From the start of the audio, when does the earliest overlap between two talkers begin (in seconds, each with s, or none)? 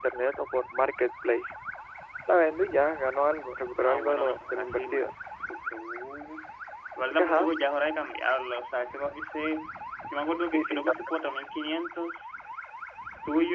3.8 s